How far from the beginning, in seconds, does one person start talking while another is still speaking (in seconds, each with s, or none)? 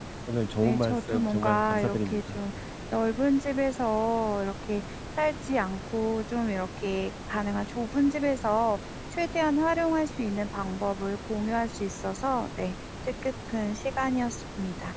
0.6 s